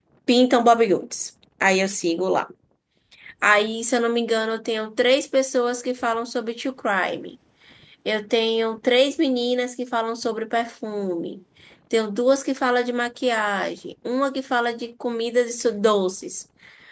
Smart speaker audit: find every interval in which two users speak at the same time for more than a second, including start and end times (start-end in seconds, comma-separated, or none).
none